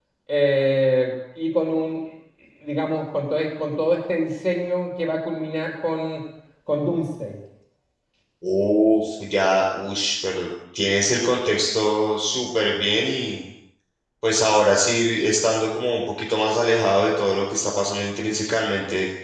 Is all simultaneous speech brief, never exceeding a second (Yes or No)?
Yes